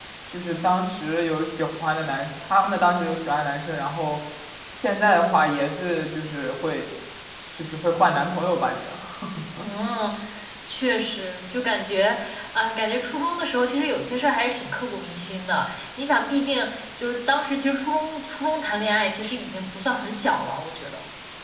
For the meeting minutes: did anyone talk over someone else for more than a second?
No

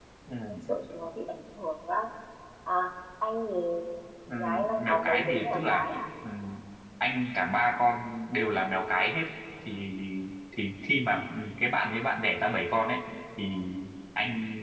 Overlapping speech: Yes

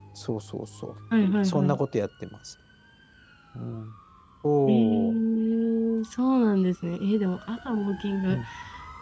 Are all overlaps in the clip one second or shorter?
Yes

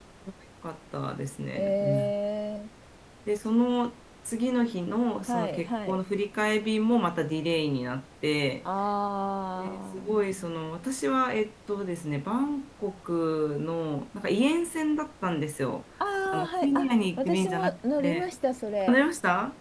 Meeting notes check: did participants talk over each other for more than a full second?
Yes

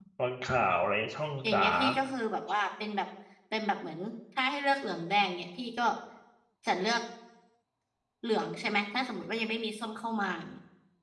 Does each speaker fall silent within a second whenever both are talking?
Yes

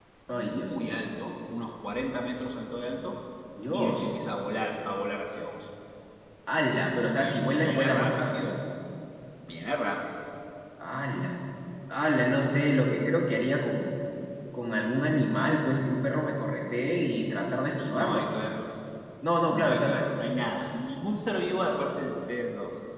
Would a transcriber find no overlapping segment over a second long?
No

